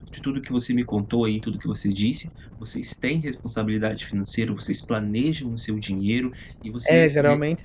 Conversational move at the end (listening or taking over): taking over